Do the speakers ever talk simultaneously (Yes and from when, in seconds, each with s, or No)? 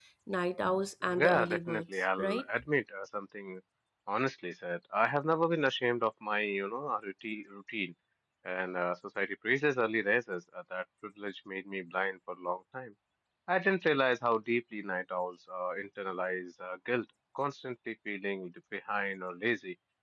Yes, from 1.1 s